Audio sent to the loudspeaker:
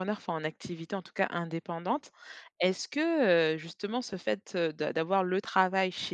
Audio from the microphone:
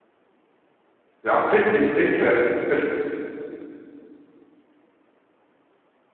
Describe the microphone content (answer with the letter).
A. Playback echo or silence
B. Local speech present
B